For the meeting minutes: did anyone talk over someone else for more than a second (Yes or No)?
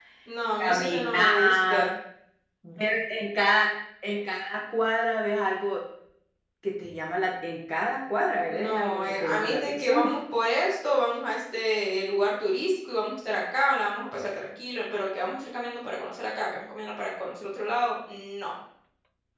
Yes